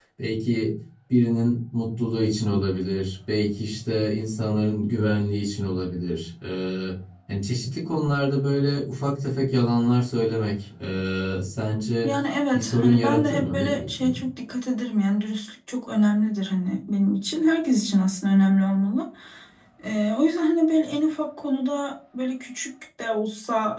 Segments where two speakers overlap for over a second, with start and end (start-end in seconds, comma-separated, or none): 12.5-14.2